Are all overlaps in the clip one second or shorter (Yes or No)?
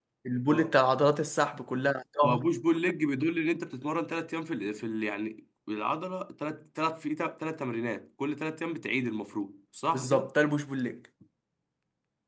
Yes